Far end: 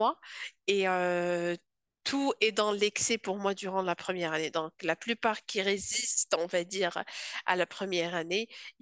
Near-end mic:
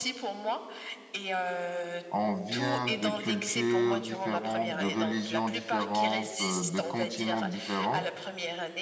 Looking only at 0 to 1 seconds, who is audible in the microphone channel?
echo only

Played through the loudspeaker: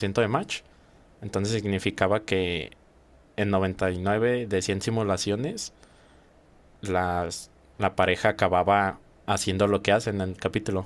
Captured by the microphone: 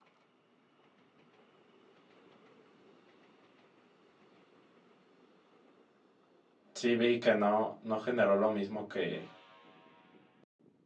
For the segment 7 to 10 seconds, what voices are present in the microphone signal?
user only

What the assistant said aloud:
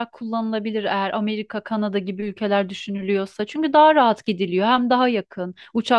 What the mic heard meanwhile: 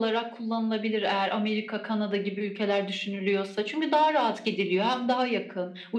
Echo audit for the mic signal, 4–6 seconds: echo only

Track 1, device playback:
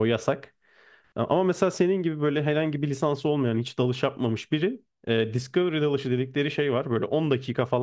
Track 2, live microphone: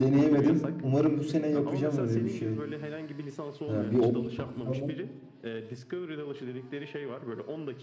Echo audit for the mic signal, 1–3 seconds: both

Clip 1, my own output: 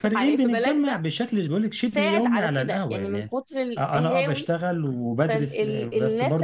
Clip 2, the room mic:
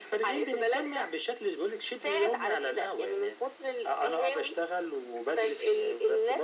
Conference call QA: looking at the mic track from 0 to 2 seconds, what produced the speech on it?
echo only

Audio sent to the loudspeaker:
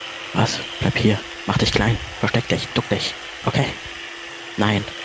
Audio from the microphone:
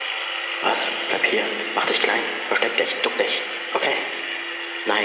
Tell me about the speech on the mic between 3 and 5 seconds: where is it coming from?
echo only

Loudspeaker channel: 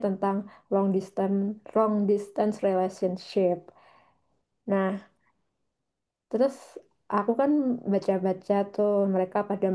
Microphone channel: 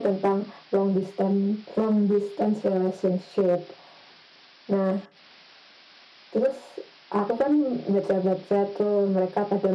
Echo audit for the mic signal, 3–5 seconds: echo only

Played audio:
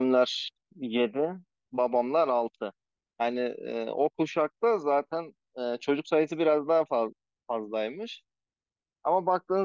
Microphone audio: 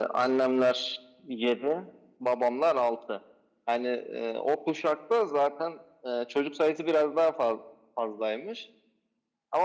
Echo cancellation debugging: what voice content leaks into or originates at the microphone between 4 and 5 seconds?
echo only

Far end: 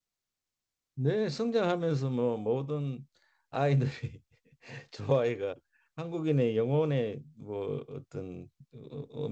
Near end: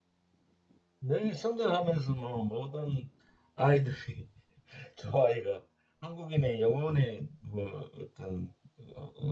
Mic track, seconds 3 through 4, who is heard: echo only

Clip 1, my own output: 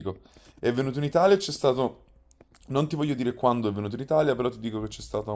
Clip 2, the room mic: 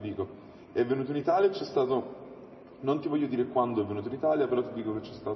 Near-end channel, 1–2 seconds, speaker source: echo only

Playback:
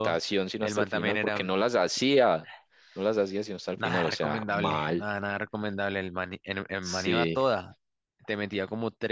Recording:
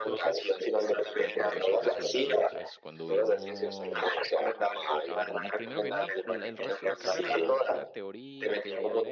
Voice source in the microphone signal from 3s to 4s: both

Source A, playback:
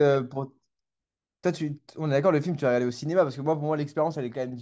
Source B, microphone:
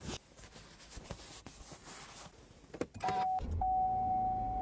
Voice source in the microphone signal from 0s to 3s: neither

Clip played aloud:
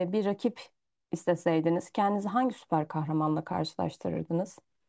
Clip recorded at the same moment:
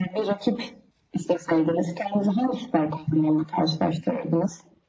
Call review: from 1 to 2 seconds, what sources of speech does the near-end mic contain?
echo only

